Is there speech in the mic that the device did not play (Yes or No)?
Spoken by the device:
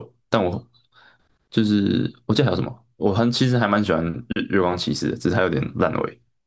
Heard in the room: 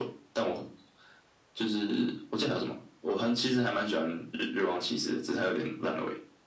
No